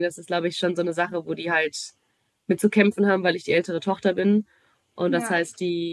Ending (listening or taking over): listening